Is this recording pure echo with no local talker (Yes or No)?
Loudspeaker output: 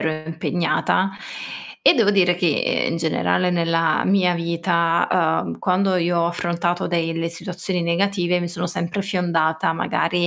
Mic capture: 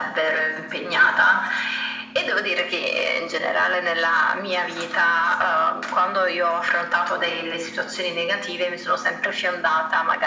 Yes